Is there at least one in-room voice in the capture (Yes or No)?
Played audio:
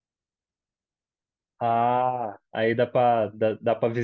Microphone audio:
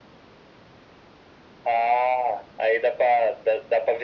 No